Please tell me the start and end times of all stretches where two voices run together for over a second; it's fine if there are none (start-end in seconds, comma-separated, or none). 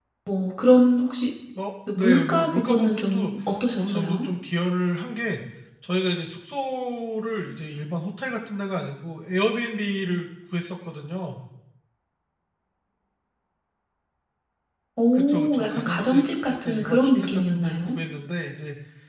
1.9-3.3, 15.1-17.8